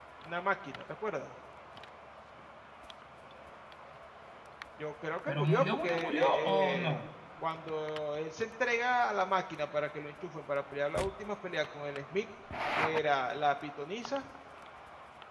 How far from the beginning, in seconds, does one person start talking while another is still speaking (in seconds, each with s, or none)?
5.3 s